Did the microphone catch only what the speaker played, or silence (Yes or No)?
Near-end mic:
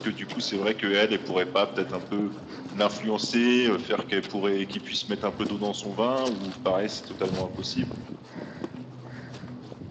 Yes